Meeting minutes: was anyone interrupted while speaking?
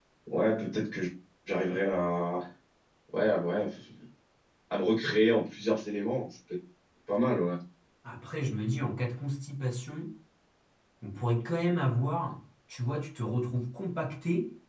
No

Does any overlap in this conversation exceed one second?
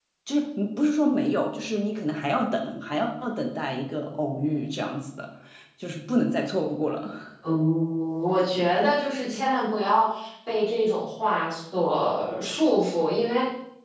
No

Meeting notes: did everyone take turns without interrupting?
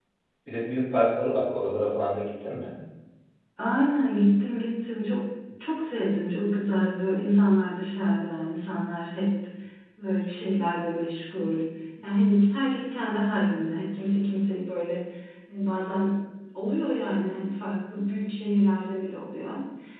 Yes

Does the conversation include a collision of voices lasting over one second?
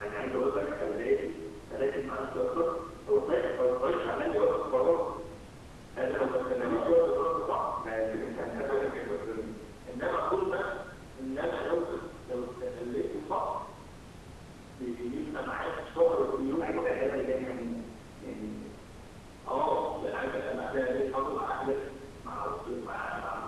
Yes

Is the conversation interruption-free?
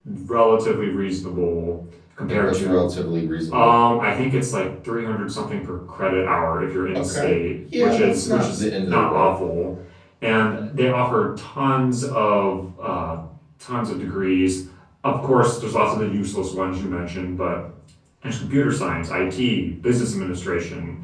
No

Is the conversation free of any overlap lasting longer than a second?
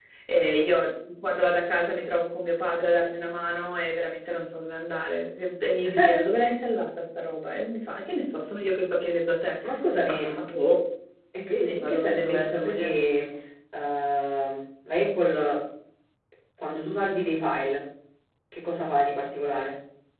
No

